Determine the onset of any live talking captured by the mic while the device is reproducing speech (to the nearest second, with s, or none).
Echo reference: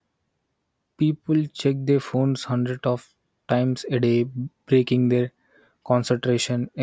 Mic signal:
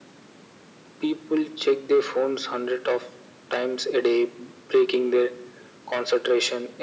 none